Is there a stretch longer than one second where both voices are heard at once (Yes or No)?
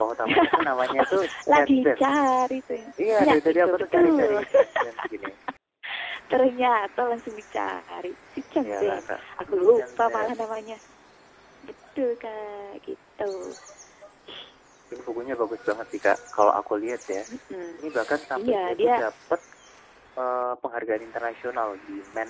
Yes